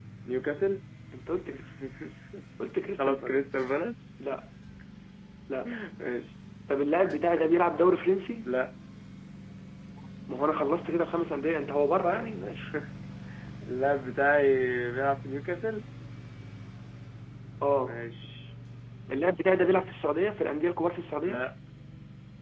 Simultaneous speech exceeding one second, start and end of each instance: none

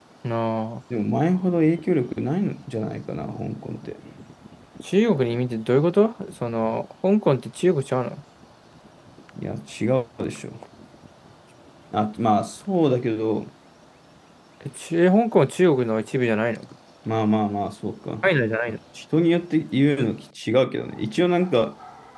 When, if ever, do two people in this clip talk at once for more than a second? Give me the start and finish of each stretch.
none

